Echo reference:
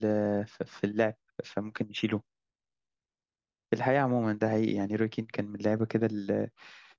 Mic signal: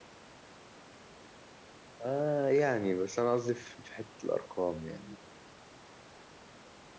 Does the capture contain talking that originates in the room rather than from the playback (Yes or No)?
Yes